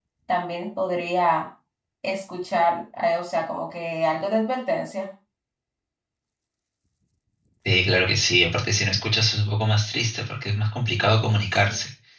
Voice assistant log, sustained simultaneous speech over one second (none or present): none